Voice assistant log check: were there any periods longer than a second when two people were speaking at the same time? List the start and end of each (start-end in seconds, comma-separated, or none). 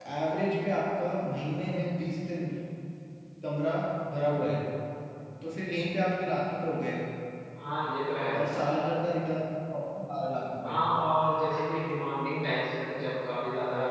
none